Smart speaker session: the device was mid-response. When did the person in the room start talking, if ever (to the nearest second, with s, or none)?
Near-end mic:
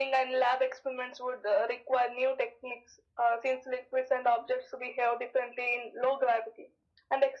none